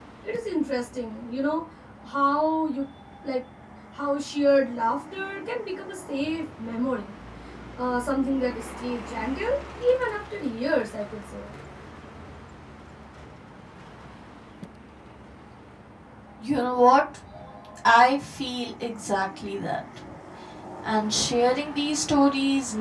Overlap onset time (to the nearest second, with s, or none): none